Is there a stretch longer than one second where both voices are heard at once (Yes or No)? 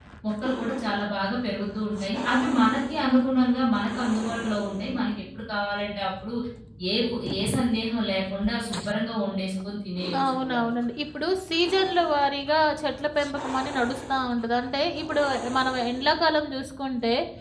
No